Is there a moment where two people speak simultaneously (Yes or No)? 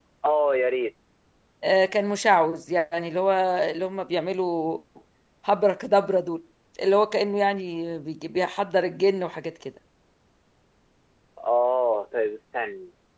No